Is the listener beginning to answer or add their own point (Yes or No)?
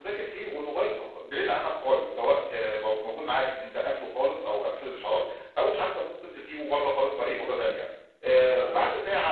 No